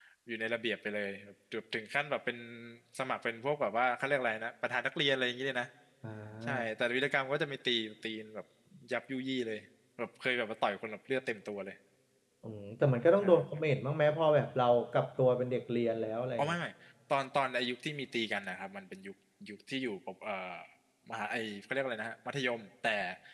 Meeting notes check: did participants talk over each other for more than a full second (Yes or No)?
No